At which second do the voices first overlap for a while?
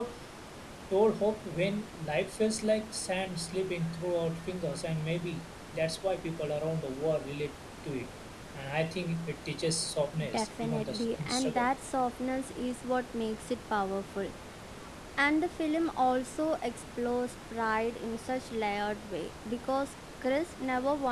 10 s

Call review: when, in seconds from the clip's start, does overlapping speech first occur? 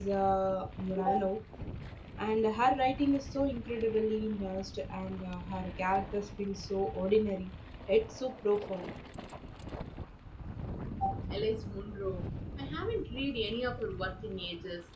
none

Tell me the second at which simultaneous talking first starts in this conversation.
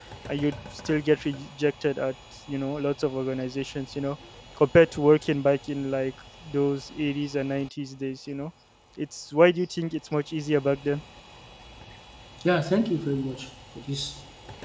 none

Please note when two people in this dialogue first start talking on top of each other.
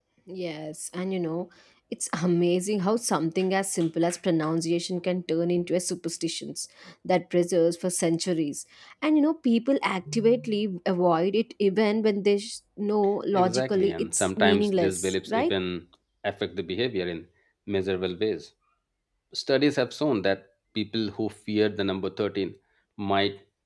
13 s

